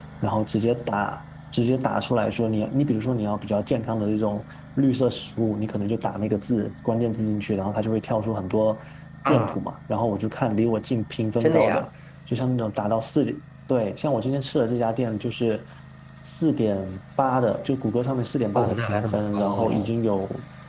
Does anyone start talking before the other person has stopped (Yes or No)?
Yes